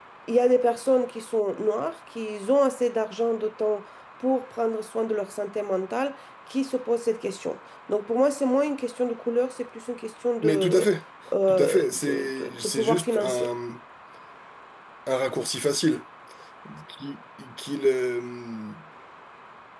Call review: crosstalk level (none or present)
present